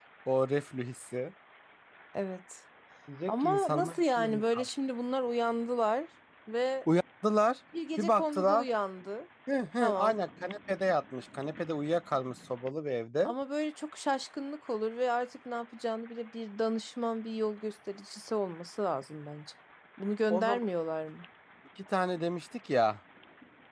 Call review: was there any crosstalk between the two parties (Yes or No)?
Yes